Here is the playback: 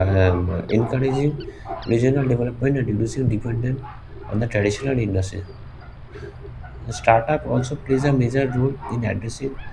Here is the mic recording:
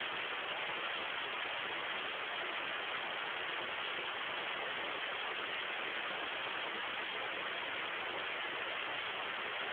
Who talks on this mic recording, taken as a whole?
neither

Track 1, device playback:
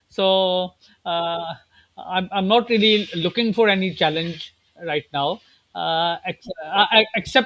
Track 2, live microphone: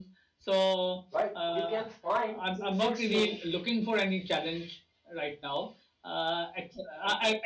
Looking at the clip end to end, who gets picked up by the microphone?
both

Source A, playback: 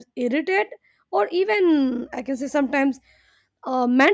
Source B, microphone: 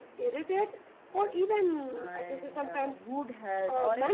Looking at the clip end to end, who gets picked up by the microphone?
both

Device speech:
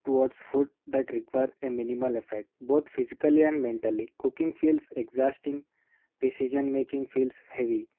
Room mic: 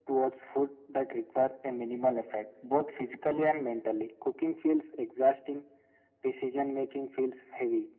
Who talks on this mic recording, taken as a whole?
echo only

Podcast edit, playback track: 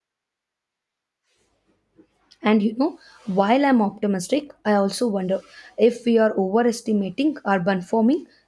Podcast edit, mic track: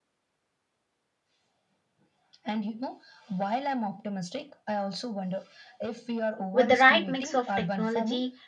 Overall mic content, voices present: both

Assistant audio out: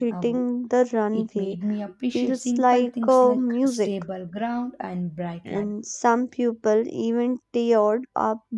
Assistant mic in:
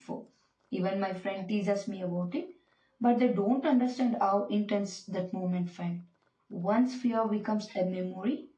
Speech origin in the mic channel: user only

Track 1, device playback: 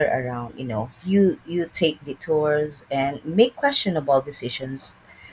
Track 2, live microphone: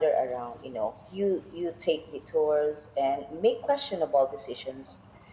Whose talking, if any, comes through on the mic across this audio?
echo only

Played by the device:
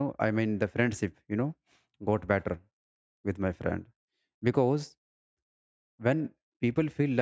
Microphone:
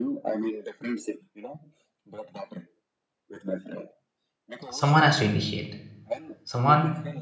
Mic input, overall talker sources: both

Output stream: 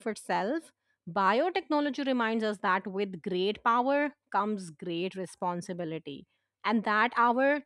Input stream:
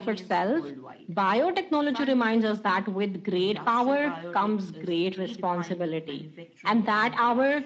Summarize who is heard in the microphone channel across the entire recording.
both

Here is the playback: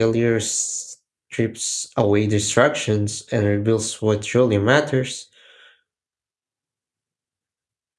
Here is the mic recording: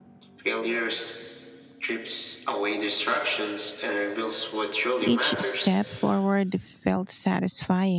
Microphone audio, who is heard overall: both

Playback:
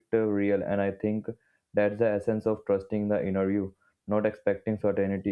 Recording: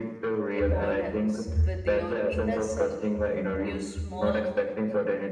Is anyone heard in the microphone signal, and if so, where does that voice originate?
both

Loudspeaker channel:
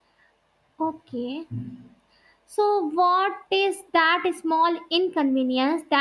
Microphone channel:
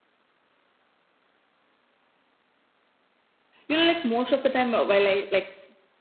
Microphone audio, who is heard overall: user only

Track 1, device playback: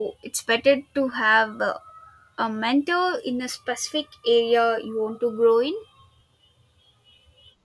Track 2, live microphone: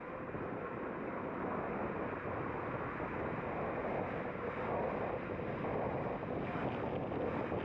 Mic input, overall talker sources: neither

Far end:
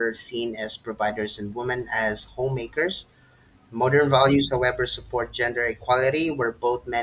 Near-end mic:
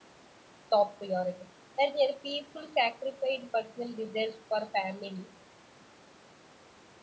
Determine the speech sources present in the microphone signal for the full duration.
user only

